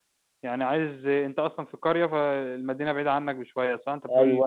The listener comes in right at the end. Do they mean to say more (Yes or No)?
Yes